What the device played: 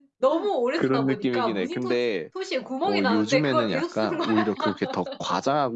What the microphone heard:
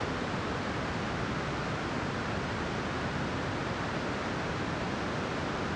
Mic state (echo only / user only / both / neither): neither